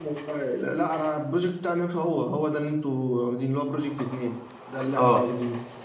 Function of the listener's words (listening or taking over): taking over